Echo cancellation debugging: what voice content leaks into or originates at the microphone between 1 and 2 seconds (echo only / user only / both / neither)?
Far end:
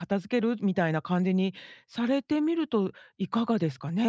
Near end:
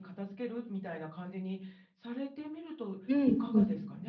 echo only